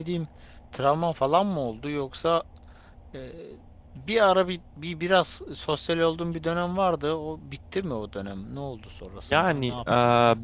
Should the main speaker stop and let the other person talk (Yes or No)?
Yes